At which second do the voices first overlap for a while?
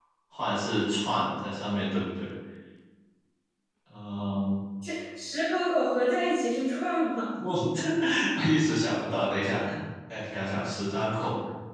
none

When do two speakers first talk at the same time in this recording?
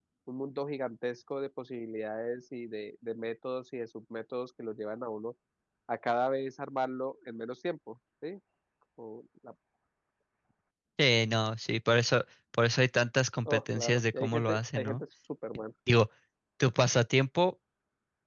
13.5 s

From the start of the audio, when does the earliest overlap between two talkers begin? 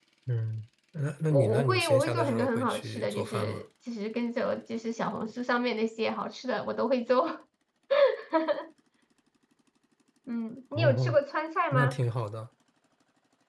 1.3 s

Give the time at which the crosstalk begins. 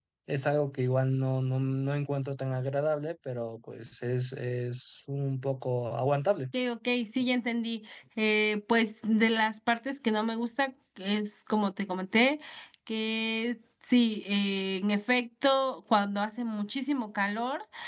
none

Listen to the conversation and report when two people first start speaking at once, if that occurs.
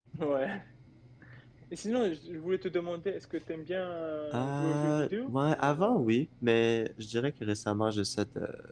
4.3 s

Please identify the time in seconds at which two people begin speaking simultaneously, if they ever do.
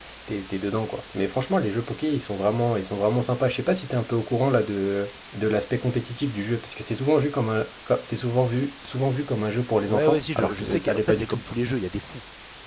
9.9 s

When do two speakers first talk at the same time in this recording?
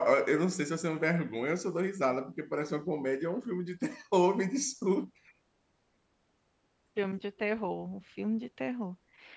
none

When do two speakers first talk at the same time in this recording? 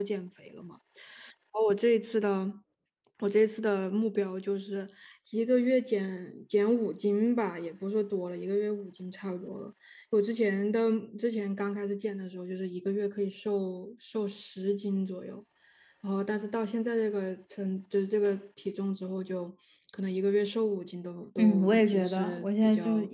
21.4 s

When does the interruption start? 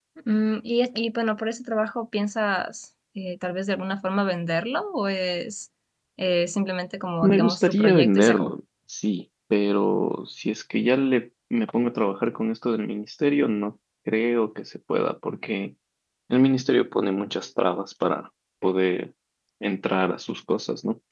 7.2 s

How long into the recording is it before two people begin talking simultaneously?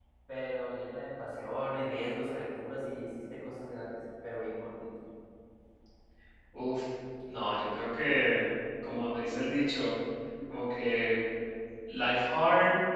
none

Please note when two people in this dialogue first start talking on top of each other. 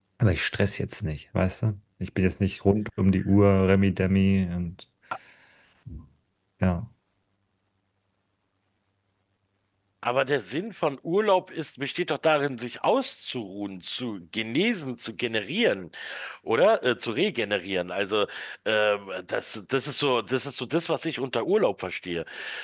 none

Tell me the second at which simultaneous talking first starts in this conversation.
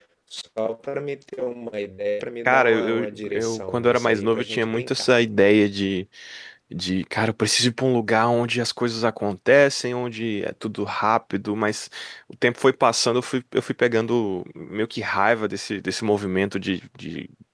2.5 s

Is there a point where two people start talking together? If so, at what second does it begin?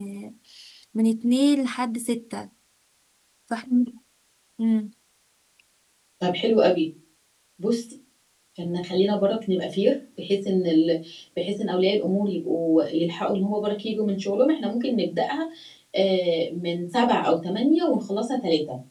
none

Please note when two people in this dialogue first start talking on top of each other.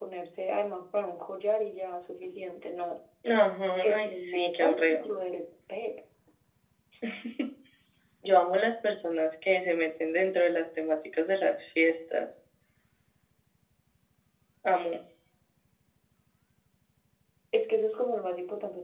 3.8 s

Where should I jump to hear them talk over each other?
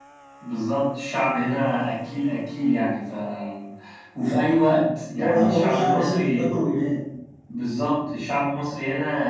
5.2 s

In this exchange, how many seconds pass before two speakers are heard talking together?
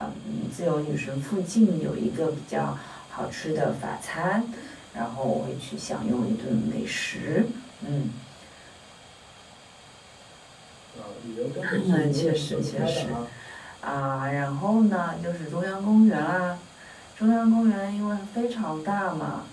11.7 s

